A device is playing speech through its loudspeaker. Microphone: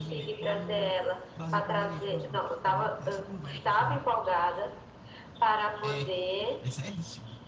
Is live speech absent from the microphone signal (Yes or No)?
No